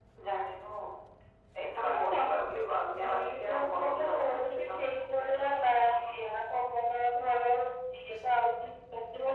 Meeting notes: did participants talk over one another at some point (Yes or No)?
Yes